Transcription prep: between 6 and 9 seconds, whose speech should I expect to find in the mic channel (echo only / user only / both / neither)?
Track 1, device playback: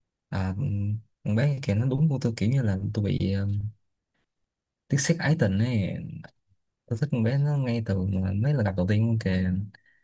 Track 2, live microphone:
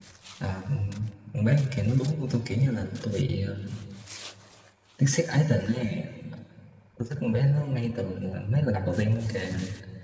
echo only